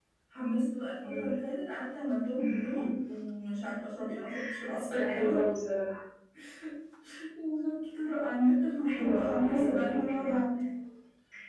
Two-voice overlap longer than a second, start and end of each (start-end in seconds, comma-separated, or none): 8.8-10.4